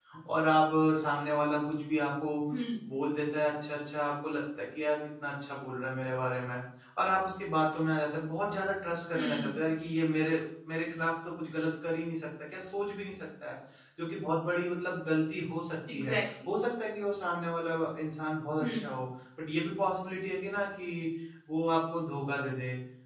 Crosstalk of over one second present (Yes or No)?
No